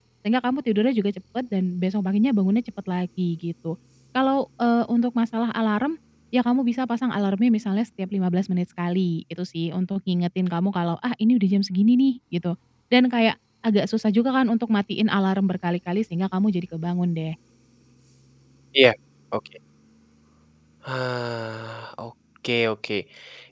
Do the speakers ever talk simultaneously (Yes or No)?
No